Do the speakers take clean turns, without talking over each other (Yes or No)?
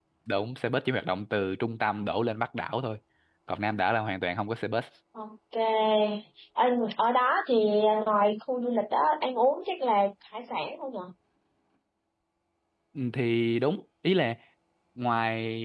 Yes